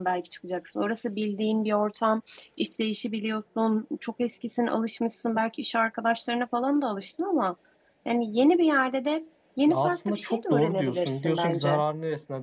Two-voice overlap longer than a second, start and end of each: 9.7-11.8

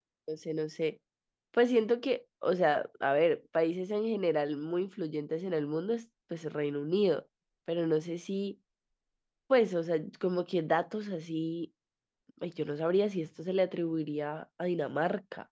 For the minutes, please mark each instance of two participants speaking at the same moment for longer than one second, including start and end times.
none

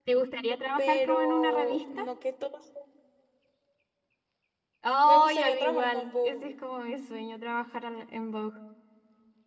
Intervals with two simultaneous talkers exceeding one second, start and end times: 0.8-2.0, 5.1-6.5

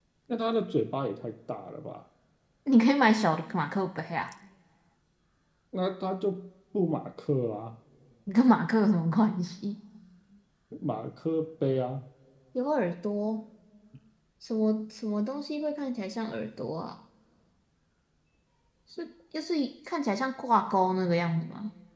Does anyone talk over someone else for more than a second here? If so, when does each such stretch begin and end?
none

